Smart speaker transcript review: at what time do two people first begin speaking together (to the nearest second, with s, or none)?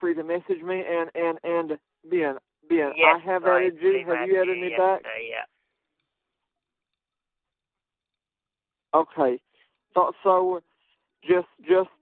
3 s